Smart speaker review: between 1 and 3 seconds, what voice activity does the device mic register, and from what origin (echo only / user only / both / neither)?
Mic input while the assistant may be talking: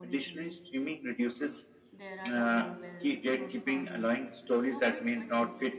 both